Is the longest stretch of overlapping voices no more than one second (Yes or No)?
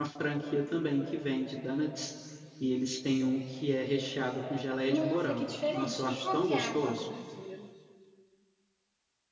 No